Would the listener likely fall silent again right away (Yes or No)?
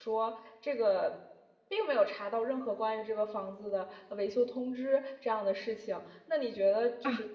Yes